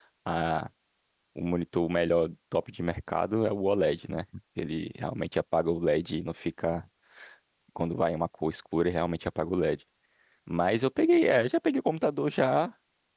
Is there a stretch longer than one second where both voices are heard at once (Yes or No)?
No